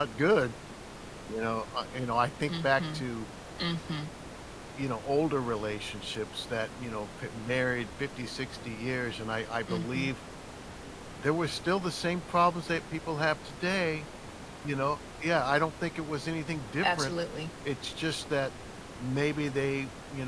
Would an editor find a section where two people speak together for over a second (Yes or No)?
No